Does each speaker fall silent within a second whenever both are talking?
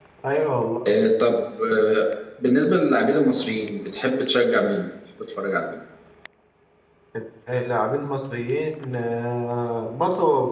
Yes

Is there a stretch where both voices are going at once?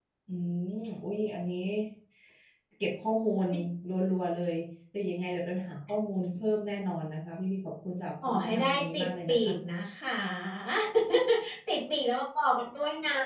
Yes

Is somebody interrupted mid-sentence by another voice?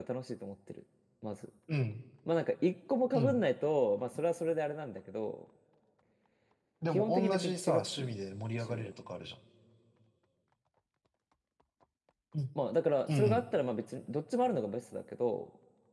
Yes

